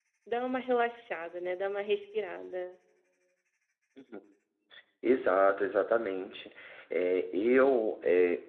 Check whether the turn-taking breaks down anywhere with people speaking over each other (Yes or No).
No